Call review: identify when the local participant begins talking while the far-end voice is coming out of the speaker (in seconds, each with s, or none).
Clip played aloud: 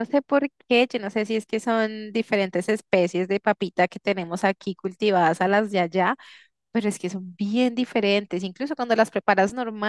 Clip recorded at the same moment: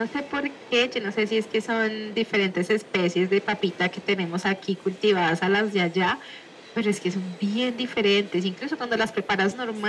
none